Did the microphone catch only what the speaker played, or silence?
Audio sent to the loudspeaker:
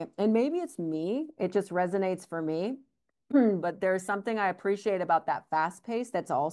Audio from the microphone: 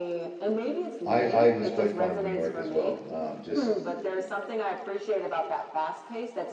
No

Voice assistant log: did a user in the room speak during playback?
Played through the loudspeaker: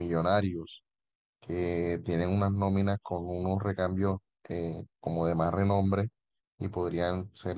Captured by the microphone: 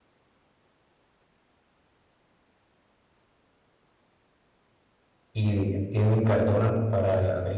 Yes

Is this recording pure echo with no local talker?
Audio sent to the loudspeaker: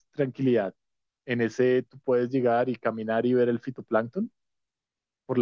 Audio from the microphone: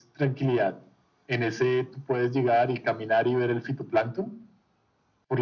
Yes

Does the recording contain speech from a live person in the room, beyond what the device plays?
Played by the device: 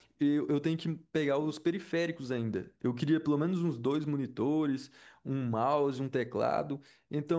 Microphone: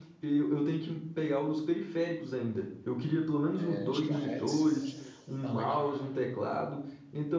Yes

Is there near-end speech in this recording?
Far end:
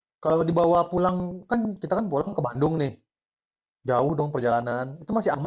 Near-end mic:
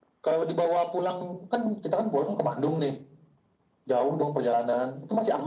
No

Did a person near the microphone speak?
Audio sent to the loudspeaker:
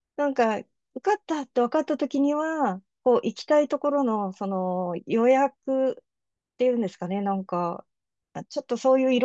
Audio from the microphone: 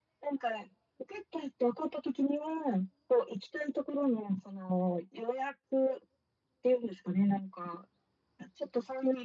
No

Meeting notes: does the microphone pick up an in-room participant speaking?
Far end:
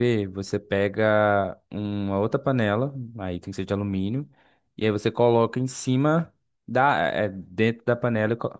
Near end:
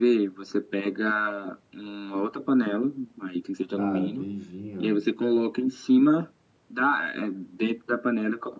Yes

